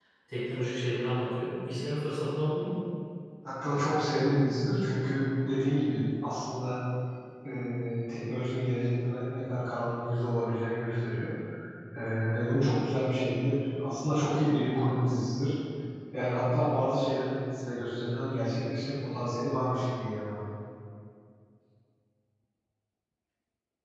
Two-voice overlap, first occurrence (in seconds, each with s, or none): none